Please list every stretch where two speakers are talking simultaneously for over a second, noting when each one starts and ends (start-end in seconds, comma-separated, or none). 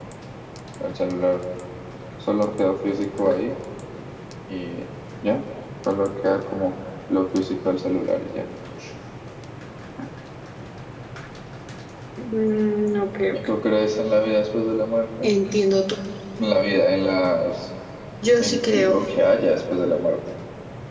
none